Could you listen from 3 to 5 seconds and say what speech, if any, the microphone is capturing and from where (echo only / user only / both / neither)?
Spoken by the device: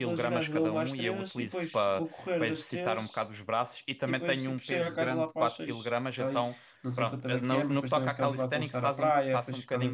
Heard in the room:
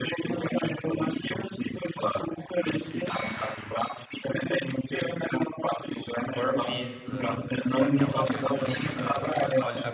echo only